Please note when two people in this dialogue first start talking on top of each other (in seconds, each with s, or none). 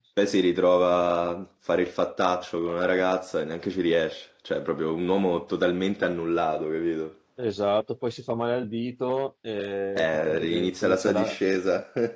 9.9 s